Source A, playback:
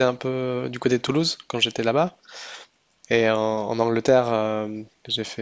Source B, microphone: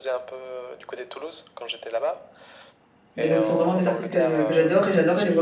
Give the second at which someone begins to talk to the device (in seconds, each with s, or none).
3.1 s